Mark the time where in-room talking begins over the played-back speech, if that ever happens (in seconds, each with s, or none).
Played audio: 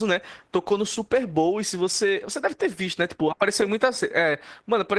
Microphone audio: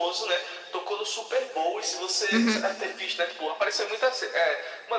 2.3 s